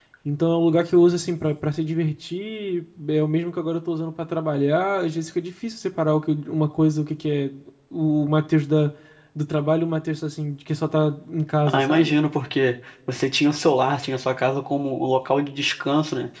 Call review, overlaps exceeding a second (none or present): none